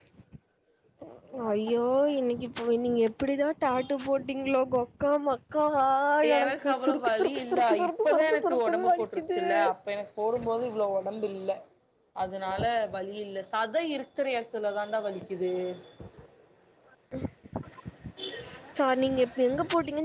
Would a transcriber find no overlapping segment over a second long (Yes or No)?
No